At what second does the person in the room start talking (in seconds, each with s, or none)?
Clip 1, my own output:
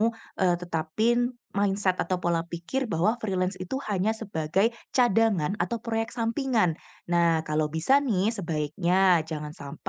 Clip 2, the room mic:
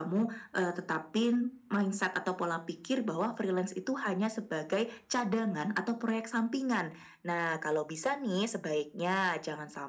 none